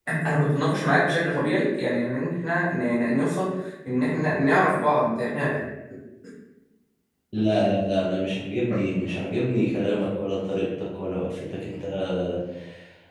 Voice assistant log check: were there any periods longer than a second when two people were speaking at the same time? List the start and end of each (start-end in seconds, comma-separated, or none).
none